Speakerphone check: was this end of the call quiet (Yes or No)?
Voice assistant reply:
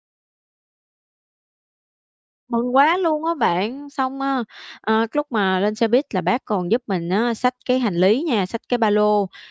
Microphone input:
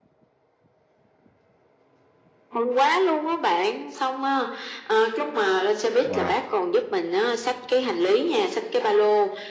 No